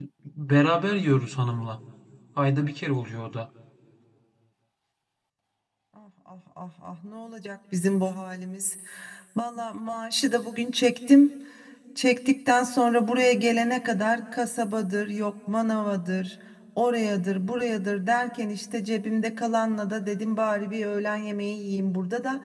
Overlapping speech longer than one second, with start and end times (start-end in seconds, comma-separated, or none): none